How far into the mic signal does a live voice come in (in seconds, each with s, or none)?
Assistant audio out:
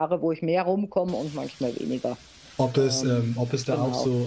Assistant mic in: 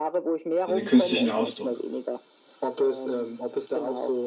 0.6 s